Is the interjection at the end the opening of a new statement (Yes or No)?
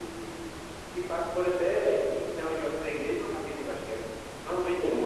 Yes